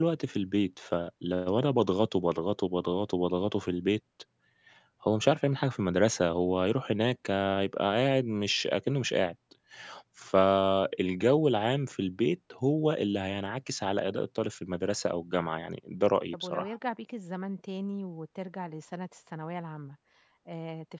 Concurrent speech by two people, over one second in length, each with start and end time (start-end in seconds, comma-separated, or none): none